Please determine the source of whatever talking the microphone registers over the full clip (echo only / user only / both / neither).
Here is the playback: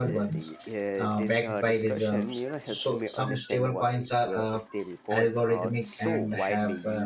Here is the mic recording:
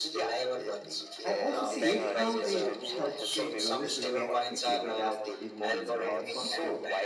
both